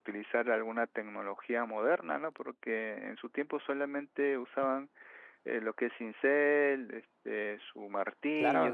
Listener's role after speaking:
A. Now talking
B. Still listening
A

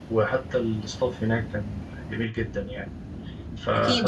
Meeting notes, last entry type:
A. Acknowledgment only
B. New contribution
B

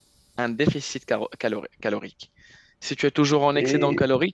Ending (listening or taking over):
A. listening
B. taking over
A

